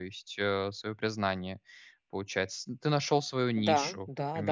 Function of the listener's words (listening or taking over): taking over